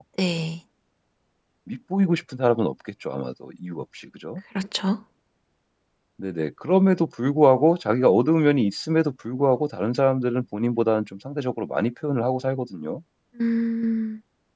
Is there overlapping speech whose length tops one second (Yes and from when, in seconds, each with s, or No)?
No